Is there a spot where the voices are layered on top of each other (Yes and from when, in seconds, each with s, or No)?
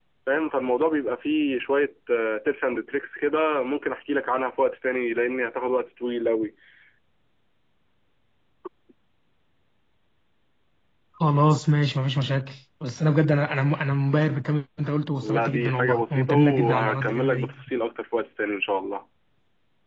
Yes, from 15.2 s